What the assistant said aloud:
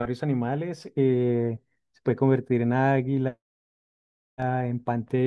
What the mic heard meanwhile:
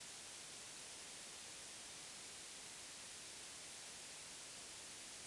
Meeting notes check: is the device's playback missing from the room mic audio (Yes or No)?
Yes